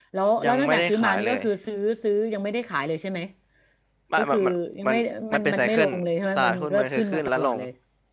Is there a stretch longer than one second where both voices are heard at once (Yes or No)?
Yes